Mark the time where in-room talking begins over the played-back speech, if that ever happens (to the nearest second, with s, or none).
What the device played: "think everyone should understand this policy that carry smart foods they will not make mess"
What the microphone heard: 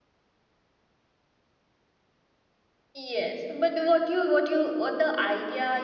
3 s